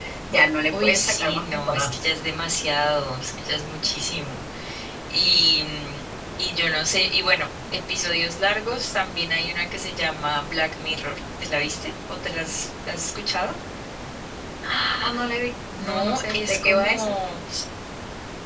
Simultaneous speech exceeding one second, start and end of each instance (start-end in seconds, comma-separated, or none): 0.7-2.0, 15.8-17.1